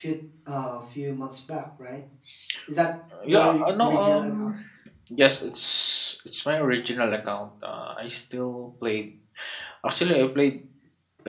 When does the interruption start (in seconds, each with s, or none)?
3.2 s